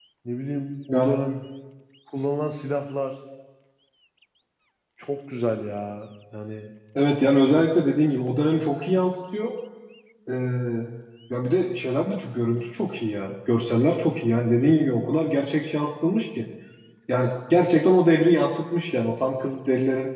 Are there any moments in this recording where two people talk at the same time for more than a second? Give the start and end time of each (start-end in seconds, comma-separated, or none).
none